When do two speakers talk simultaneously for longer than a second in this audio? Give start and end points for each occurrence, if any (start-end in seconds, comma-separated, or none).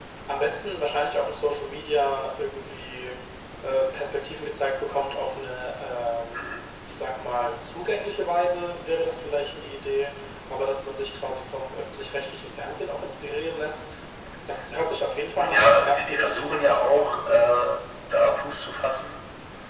15.5-17.8